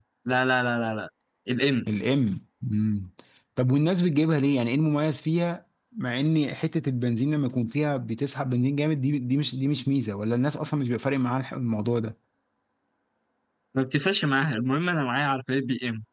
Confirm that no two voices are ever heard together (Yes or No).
Yes